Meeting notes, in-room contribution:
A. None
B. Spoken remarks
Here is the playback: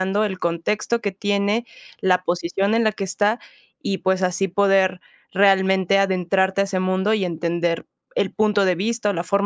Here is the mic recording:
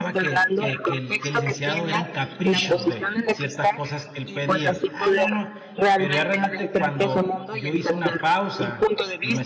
B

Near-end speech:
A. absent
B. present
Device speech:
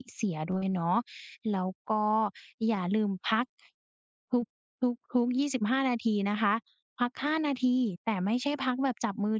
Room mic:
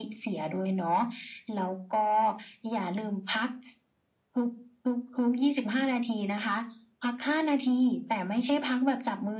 A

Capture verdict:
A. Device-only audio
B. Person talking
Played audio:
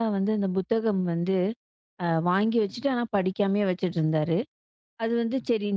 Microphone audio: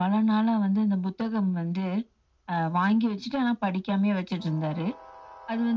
A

